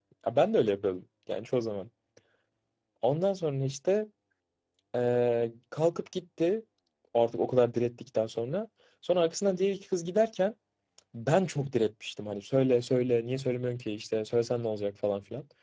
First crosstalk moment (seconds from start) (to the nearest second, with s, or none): none